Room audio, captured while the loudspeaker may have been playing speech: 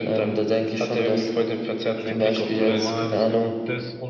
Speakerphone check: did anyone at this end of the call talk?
Yes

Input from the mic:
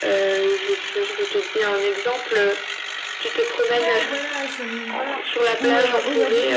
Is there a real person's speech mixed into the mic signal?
Yes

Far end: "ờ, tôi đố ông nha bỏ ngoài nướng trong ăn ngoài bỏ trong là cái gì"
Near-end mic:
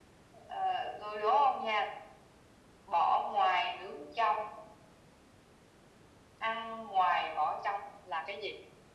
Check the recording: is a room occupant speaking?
No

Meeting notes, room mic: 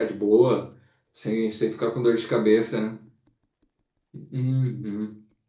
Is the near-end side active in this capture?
Yes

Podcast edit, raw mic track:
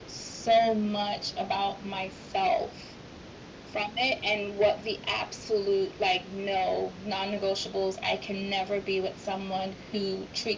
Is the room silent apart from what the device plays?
Yes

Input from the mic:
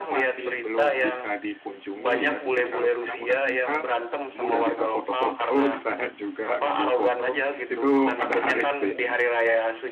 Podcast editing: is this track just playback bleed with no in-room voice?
No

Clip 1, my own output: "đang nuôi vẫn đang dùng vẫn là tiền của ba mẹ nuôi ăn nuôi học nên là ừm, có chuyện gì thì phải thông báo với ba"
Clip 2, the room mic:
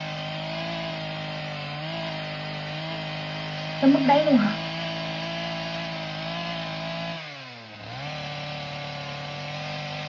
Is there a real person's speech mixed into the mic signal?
Yes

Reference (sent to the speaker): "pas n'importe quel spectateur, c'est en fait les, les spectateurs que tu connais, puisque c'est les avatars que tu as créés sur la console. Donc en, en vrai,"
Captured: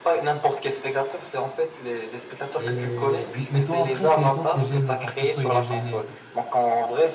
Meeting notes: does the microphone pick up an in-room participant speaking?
Yes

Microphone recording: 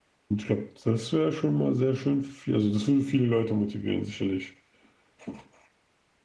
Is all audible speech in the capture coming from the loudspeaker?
No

